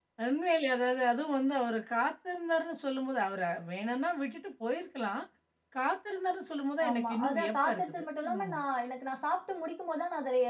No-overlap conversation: No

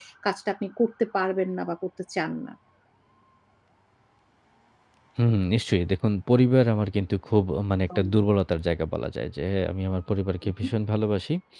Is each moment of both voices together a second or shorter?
Yes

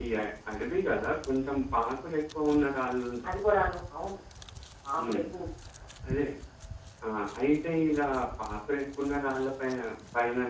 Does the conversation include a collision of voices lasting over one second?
No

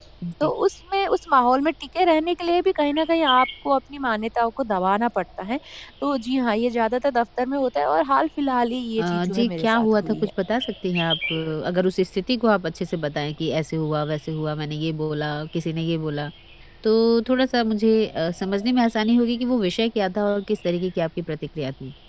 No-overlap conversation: No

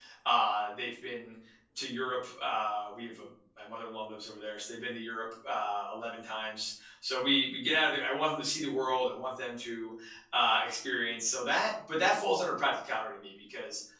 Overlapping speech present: No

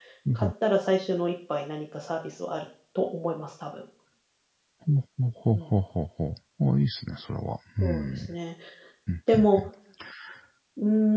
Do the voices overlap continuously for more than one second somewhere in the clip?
No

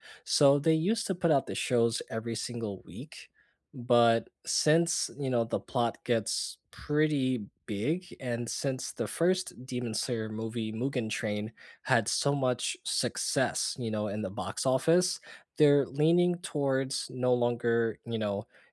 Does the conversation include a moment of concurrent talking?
No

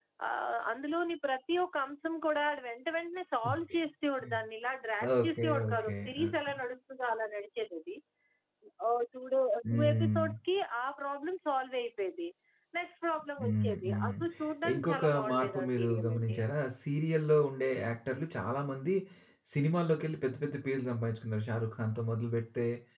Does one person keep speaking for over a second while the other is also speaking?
Yes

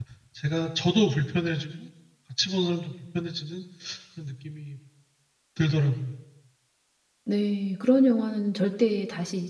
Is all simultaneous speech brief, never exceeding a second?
Yes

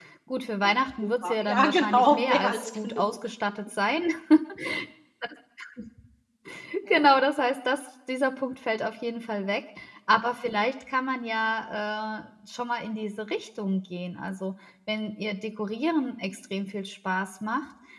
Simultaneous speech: Yes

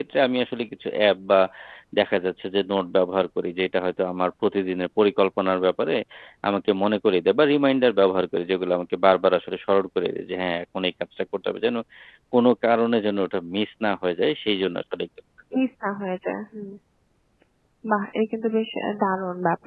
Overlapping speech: No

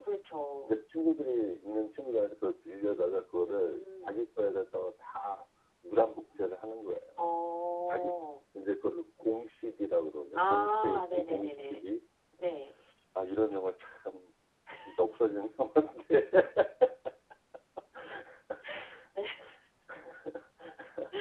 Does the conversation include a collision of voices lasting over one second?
Yes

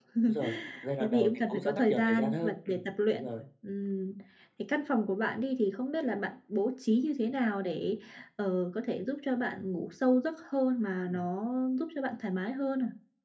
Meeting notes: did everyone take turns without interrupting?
No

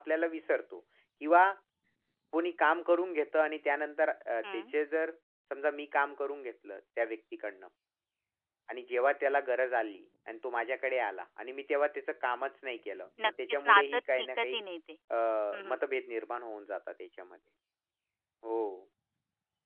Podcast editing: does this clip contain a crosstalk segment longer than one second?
Yes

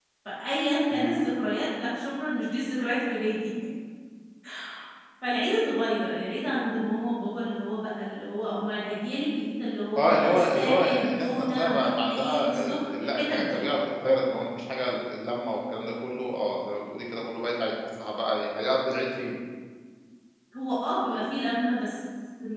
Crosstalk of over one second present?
Yes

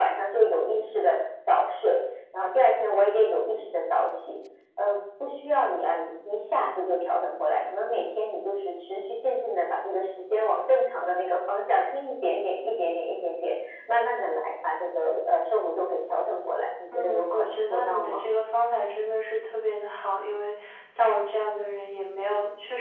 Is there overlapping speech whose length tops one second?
Yes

